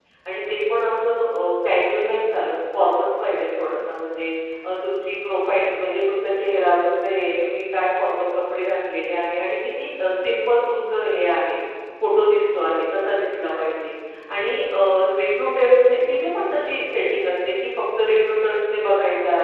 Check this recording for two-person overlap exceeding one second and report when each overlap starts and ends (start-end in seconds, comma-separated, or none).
none